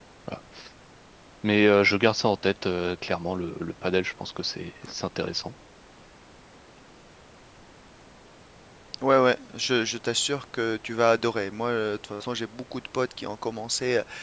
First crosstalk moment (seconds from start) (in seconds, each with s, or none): none